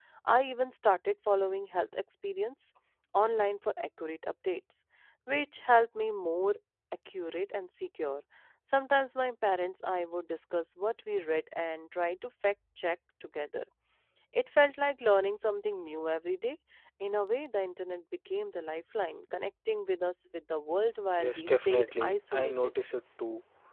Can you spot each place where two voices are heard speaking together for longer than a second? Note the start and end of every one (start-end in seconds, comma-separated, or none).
21.2-22.7